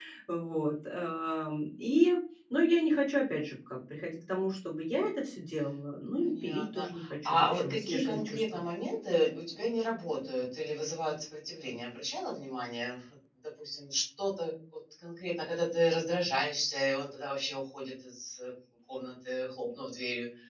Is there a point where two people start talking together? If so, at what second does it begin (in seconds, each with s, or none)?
6.3 s